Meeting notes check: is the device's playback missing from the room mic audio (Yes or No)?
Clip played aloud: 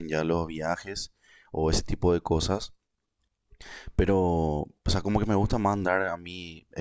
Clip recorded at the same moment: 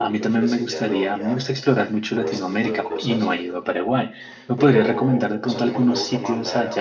No